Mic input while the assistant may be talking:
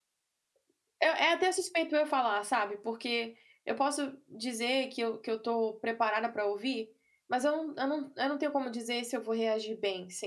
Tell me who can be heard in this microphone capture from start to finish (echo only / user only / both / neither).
user only